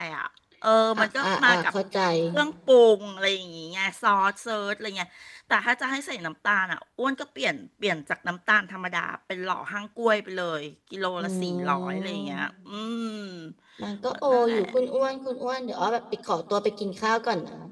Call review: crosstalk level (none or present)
present